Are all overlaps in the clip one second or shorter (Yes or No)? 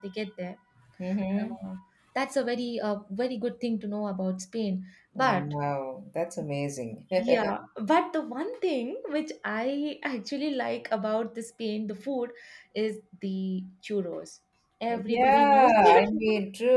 No